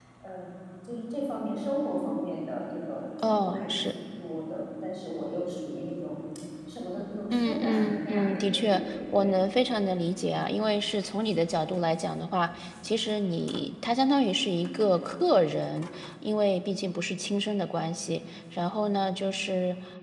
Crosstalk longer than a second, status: present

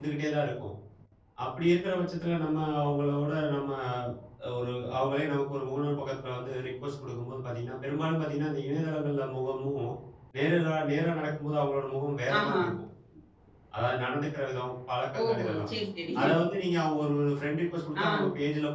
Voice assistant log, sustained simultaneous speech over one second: none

